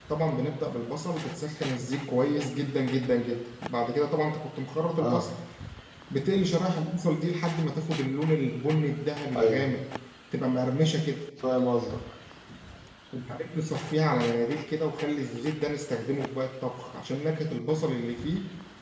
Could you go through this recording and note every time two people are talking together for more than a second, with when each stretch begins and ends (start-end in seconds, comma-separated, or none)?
none